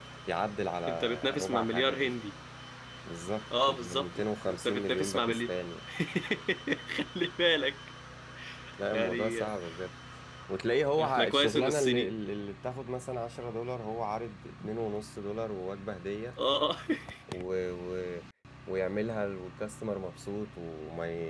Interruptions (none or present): present